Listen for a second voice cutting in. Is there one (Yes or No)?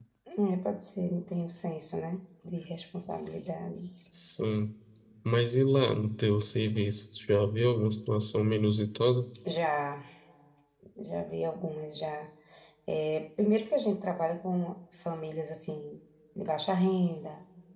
No